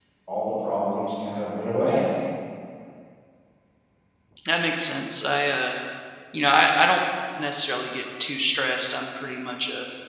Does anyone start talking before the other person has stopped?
No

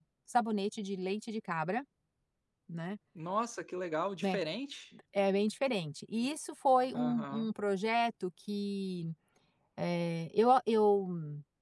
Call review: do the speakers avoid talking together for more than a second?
Yes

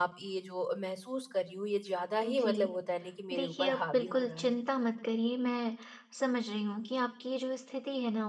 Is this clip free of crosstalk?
No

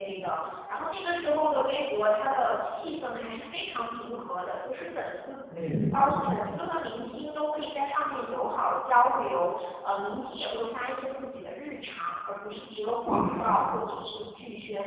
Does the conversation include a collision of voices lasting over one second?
No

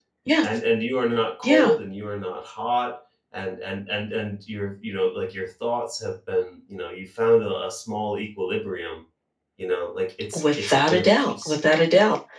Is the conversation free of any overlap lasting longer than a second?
No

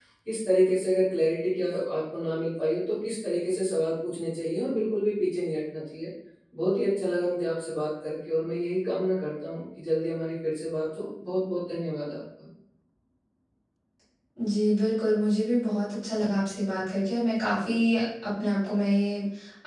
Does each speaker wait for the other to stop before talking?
Yes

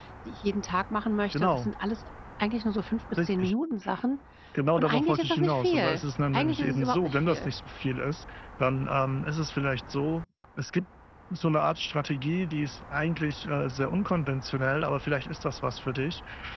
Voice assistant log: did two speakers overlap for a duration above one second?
Yes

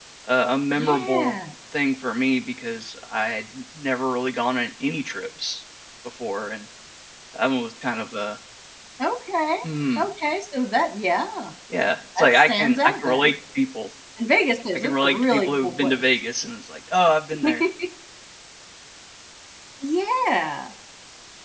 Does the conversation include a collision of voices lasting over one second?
Yes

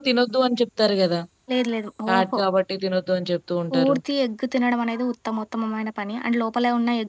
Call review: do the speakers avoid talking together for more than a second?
Yes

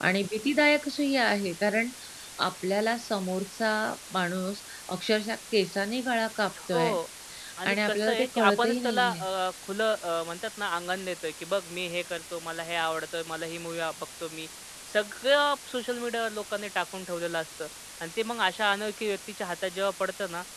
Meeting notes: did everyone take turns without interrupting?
No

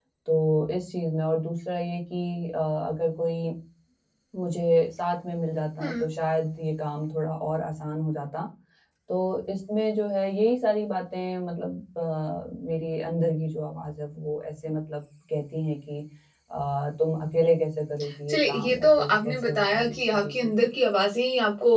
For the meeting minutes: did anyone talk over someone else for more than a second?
Yes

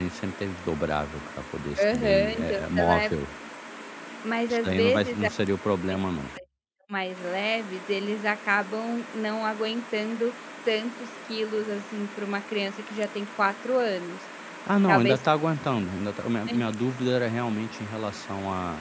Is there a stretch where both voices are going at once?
Yes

